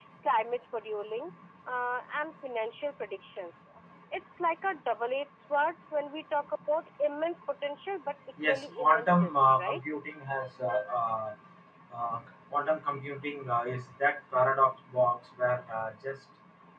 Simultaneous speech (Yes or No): Yes